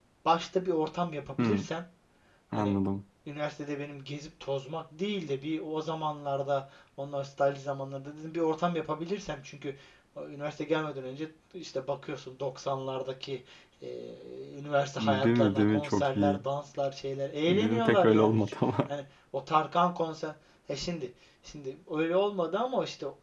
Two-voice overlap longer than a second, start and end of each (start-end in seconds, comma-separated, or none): 15.0-16.4, 17.5-18.9